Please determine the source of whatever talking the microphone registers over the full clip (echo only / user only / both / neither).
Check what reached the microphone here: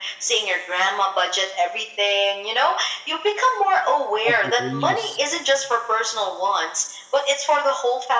both